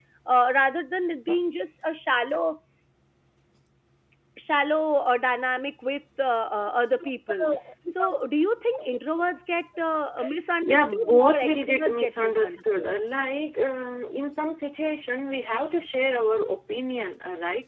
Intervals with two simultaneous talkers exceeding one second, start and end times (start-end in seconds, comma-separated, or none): 10.6-12.9